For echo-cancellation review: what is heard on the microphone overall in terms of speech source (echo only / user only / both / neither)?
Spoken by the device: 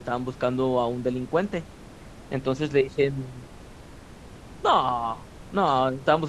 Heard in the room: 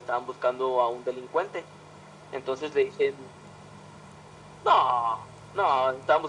echo only